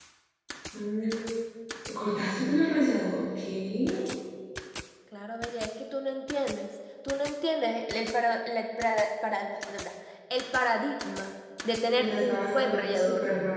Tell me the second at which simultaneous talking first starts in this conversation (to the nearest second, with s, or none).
12 s